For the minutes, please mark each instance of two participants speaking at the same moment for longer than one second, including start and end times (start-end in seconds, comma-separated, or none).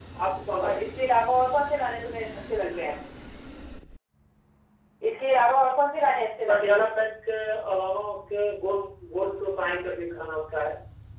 none